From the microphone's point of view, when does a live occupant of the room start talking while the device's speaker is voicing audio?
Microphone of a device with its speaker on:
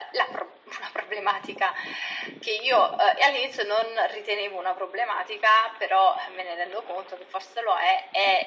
none

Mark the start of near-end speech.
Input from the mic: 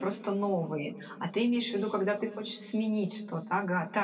none

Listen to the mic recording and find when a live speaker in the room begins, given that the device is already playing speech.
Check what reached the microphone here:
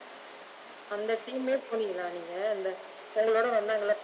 none

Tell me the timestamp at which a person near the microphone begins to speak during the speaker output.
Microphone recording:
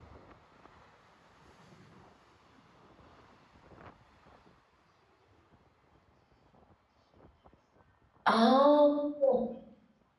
8 s

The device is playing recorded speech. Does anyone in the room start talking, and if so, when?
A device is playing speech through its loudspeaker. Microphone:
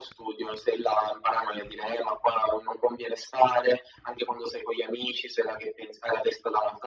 none

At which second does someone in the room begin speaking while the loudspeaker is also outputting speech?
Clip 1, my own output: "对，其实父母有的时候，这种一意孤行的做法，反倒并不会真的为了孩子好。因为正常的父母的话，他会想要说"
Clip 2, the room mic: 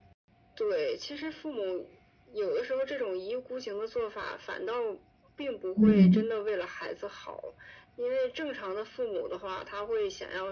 6 s

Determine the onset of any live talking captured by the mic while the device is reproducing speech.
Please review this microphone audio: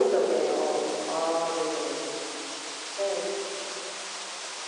none

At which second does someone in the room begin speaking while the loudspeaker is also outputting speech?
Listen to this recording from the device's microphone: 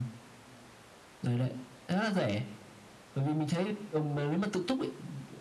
none

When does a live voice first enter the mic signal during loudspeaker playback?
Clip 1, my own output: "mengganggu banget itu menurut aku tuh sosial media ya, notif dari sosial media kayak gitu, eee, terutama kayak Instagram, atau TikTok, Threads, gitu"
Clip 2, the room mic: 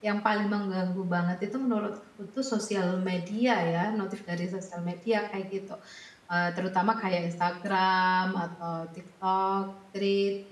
none

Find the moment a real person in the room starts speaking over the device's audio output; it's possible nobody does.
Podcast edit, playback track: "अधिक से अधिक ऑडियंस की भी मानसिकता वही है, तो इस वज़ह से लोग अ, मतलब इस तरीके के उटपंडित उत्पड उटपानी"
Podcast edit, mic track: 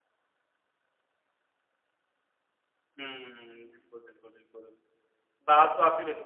3 s

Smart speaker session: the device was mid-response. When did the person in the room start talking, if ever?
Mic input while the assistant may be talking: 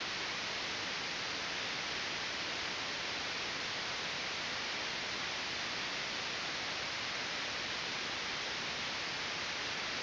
none

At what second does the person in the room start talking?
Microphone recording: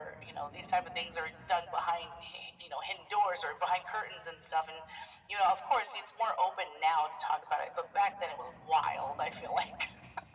none

